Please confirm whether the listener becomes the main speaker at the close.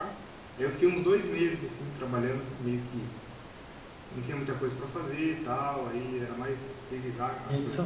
Yes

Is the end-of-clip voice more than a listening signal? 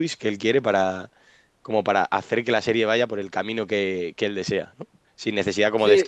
No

